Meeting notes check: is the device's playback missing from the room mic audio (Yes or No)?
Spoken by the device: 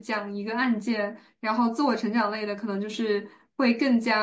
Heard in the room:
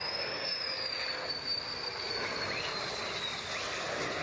Yes